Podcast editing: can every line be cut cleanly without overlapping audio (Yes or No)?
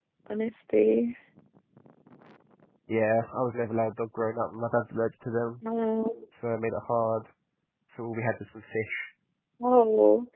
Yes